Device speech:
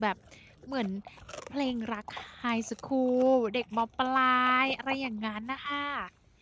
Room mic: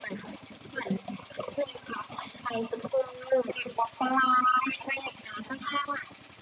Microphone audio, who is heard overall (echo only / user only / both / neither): echo only